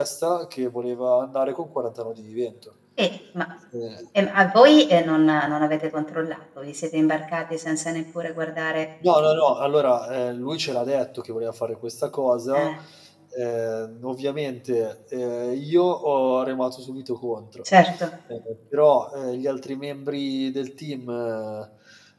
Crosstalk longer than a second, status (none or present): none